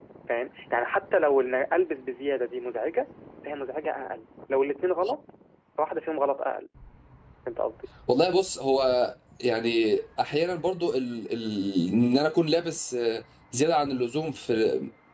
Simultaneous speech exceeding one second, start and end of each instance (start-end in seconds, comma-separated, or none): none